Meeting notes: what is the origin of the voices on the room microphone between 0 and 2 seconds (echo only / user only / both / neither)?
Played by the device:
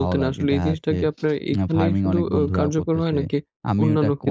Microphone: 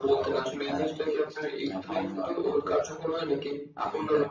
echo only